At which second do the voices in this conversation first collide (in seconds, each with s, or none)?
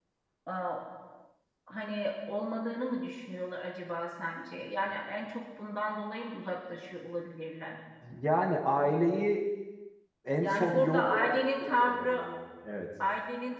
10.3 s